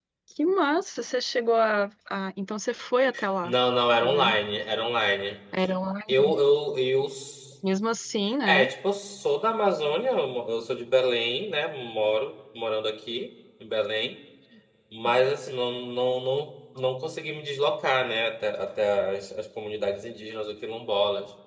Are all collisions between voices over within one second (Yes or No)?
Yes